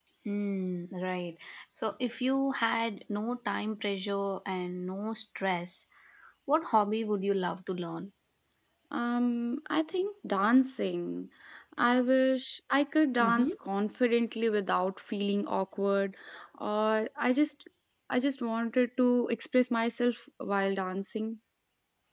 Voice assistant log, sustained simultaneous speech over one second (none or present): none